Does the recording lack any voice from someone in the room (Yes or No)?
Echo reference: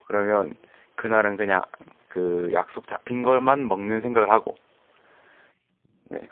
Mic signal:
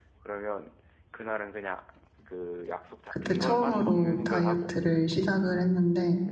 No